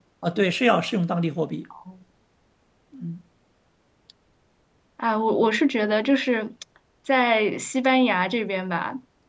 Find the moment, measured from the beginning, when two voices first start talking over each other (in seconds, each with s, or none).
none